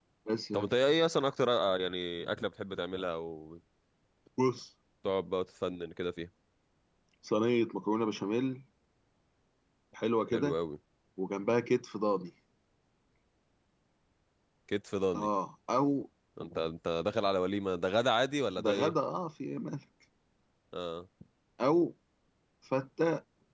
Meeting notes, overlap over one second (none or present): none